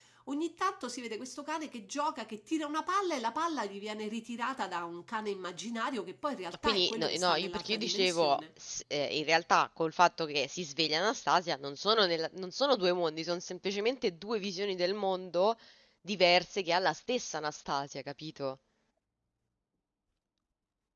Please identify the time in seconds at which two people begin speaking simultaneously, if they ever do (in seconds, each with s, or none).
6.6 s